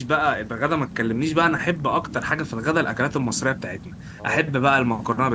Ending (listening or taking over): listening